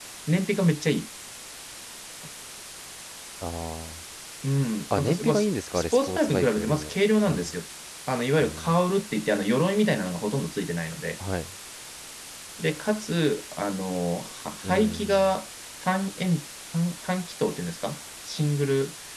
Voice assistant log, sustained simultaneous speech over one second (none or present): present